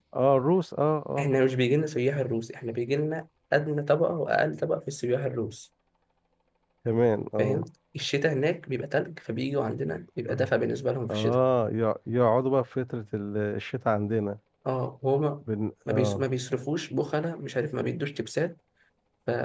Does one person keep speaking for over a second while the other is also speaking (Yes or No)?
No